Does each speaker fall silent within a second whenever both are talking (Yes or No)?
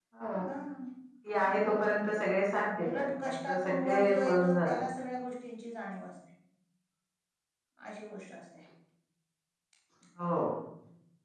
No